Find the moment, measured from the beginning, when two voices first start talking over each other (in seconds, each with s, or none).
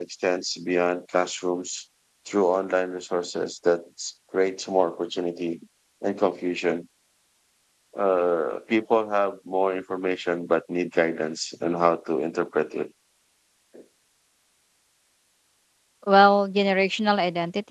none